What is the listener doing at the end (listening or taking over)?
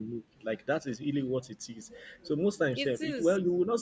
listening